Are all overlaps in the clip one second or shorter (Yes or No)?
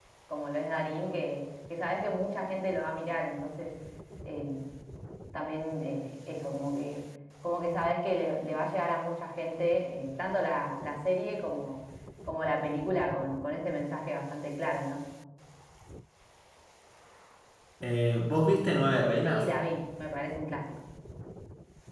Yes